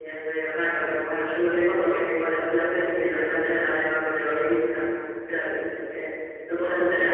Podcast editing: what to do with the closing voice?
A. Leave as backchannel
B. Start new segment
B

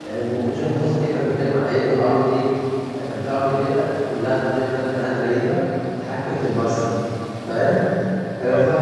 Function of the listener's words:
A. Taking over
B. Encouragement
B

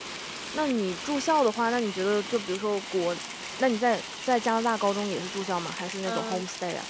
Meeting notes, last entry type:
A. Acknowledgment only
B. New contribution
B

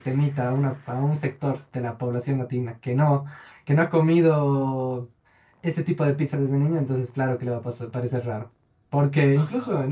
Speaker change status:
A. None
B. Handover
A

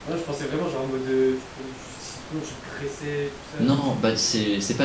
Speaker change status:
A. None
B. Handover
B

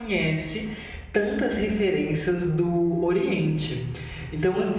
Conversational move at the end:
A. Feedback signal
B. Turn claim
A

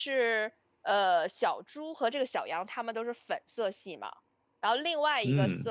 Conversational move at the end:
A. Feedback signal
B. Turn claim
A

